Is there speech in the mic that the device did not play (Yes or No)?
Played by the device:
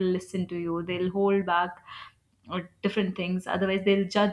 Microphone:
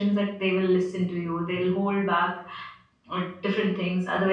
No